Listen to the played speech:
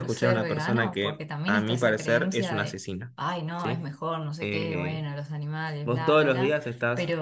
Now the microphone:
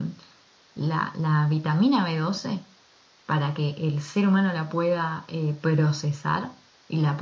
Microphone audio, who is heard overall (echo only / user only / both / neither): user only